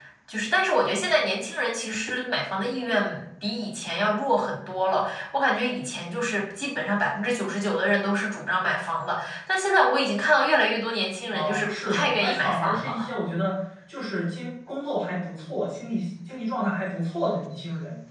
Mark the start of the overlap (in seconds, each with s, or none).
11.3 s